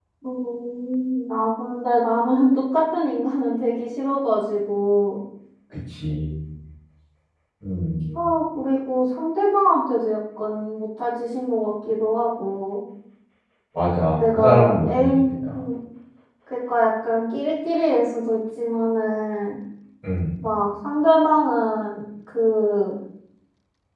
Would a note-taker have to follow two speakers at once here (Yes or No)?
Yes